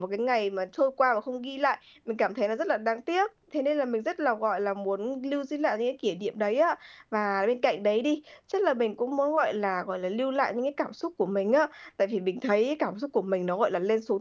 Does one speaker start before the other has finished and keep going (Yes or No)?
No